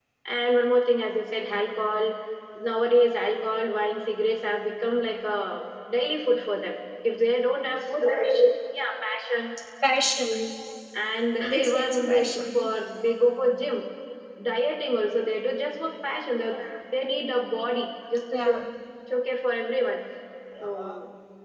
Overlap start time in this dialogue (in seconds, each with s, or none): 11.4 s